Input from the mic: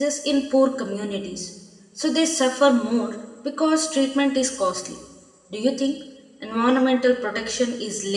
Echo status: none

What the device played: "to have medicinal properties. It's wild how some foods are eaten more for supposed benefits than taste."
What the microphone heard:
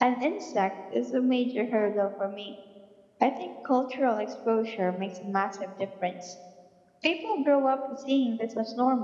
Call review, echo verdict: none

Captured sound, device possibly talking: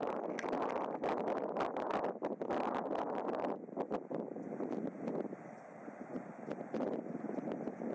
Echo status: none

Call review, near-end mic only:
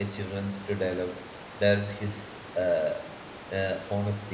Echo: none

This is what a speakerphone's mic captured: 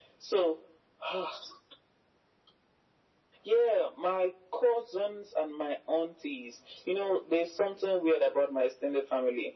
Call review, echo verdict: present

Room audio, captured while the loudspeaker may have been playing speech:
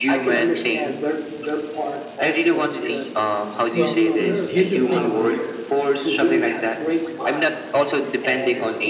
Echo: present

